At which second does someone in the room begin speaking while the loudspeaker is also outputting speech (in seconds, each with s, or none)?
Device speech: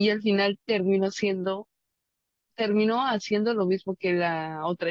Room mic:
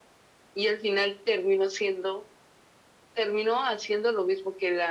none